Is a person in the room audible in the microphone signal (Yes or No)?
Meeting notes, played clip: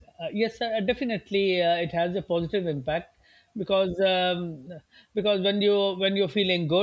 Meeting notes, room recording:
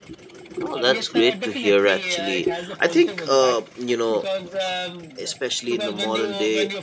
Yes